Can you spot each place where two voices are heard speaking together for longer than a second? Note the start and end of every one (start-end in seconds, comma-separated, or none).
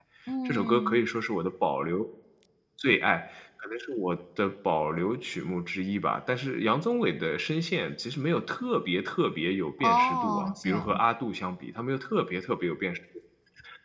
9.8-11.0